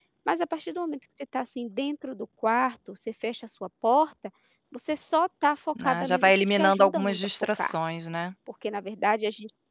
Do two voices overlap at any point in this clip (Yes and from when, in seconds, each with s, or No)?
Yes, from 5.8 s